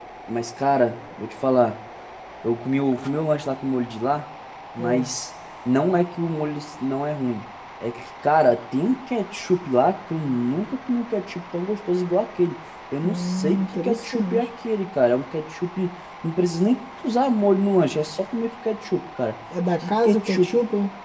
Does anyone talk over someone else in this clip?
Yes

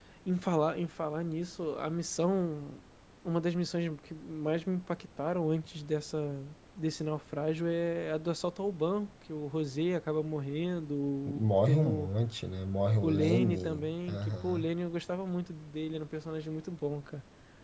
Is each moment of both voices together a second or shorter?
No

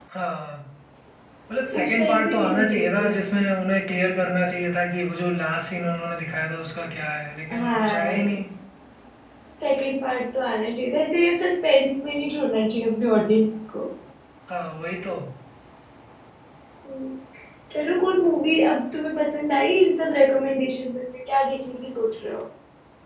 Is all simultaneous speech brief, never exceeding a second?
No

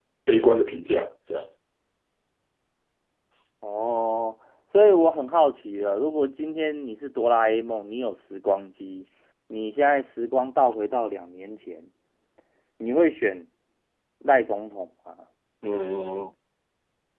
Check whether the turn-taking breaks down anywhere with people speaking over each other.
No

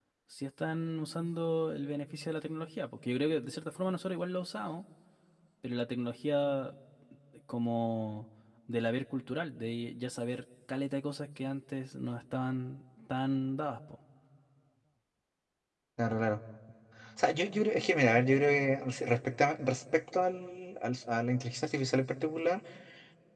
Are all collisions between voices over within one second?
Yes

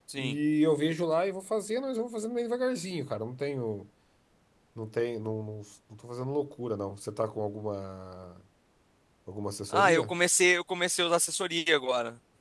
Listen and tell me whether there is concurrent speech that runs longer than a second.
No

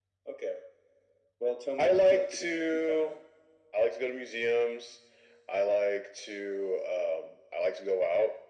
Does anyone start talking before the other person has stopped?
Yes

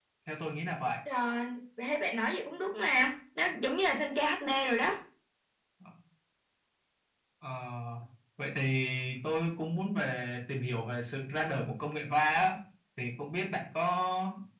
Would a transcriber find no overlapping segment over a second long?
Yes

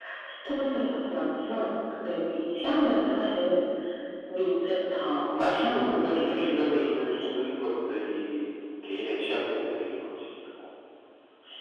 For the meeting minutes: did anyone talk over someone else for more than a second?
Yes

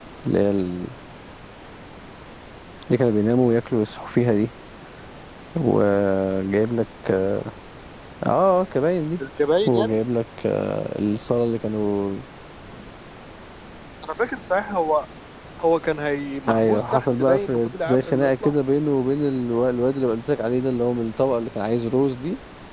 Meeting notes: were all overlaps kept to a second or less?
No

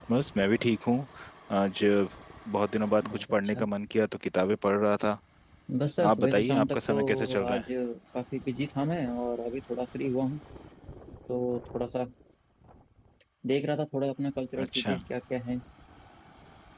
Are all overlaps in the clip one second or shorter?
No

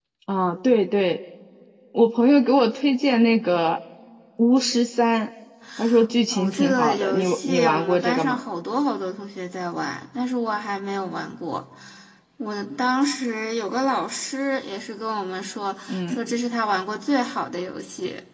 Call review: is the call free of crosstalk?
No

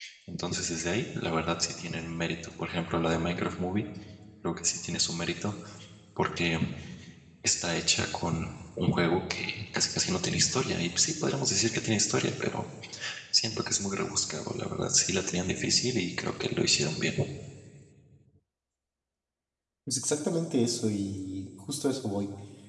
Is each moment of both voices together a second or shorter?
Yes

